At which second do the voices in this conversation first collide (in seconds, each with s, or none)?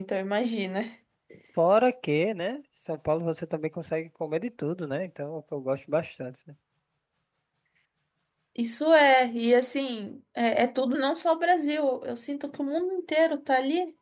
none